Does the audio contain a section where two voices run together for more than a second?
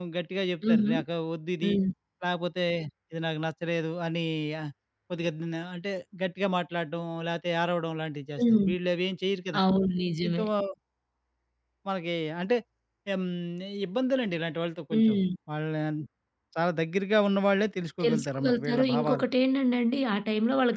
Yes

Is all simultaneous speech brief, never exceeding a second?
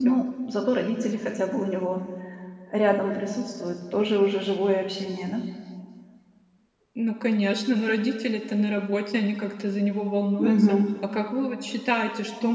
Yes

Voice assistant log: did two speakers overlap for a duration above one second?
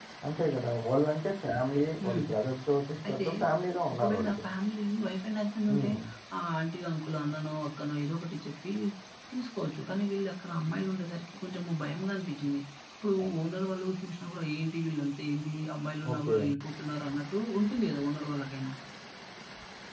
No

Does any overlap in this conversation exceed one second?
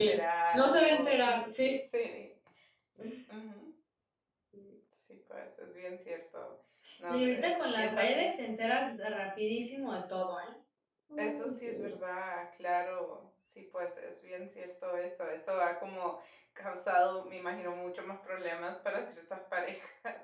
Yes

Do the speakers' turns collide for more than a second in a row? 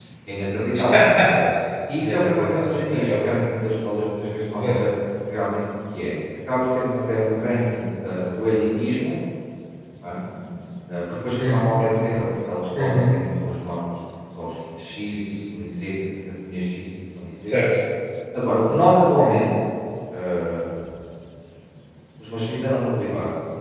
Yes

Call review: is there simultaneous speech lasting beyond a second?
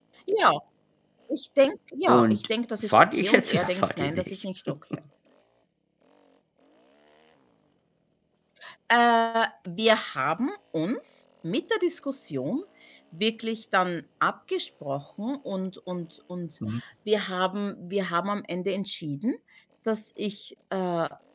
Yes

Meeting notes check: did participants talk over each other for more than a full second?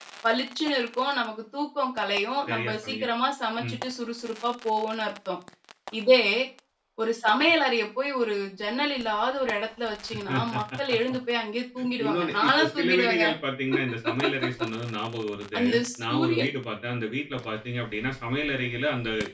Yes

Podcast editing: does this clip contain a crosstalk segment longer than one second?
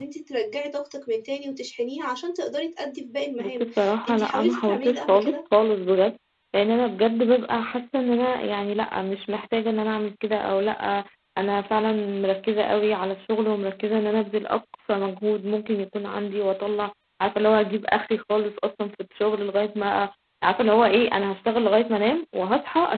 Yes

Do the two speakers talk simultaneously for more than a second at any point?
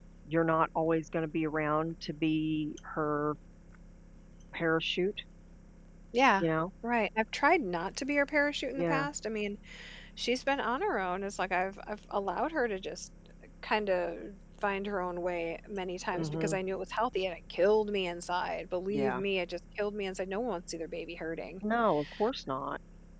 No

